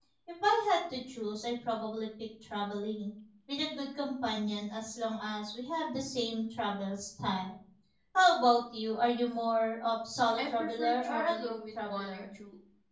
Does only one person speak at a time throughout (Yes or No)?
No